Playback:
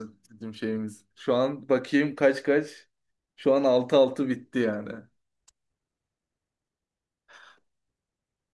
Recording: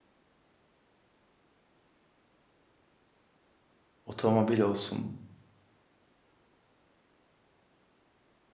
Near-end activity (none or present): present